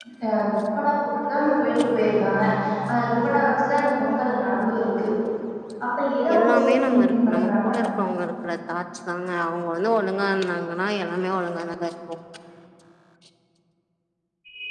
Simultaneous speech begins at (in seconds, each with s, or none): 6.4 s